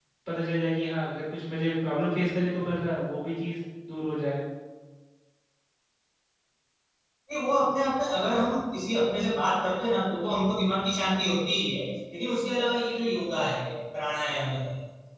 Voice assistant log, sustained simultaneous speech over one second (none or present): none